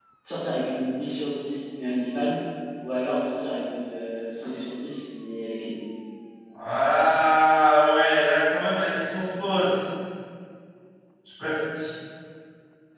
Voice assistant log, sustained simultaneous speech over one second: none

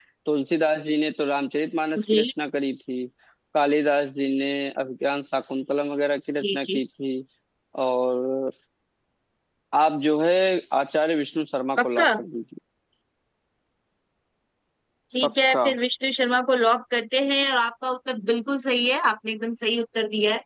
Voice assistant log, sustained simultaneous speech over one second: none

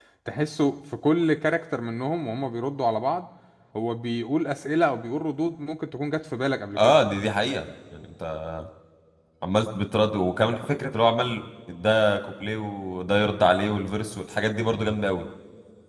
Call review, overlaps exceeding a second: none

